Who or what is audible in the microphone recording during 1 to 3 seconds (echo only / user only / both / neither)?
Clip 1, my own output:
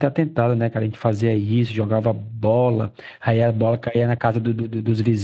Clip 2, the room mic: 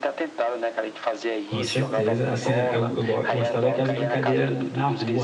both